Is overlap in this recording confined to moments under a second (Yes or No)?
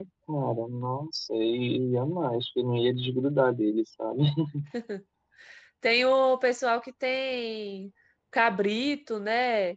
Yes